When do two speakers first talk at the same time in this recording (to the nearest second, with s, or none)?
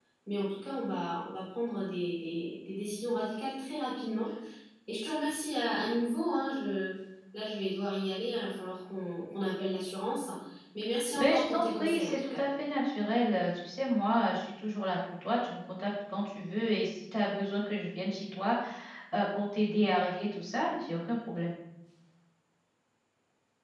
11 s